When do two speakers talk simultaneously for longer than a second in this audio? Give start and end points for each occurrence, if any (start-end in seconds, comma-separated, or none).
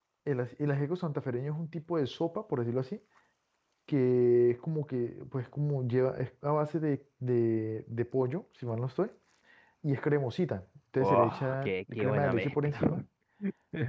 11.0-13.0